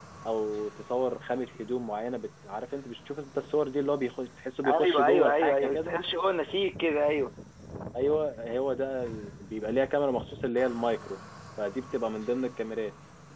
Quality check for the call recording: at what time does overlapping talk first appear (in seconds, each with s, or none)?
4.6 s